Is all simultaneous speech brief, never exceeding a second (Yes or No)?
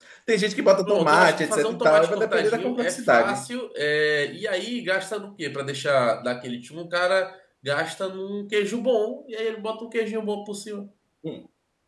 No